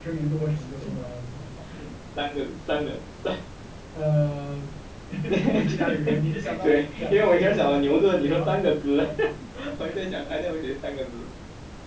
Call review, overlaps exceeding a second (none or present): present